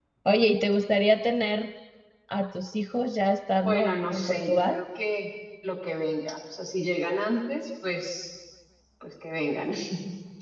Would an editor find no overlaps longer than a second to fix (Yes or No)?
No